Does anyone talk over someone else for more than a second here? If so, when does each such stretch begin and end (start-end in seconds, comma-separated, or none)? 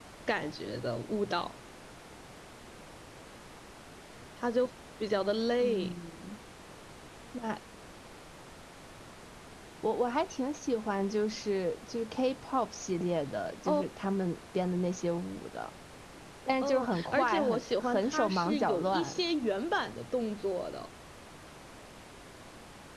16.6-19.2